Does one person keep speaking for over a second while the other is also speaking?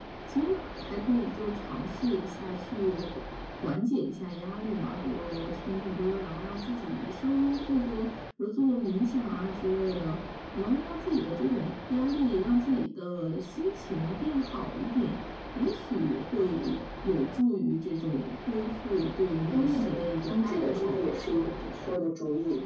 Yes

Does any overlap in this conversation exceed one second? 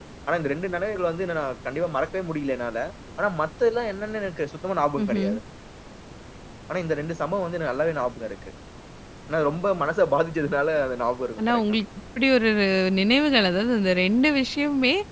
No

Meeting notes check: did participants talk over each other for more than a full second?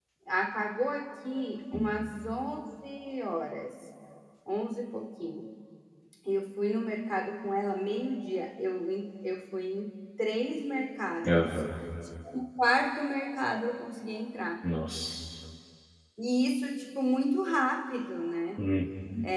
No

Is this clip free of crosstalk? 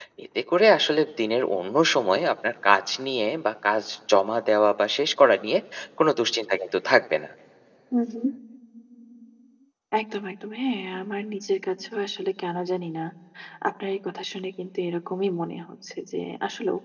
Yes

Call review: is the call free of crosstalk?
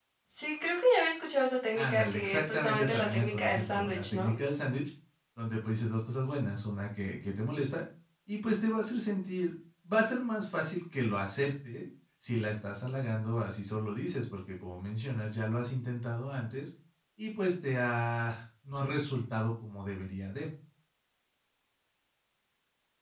No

